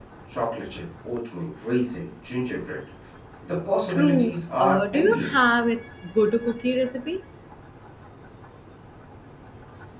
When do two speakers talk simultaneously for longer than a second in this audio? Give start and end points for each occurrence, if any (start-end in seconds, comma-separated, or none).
3.9-5.5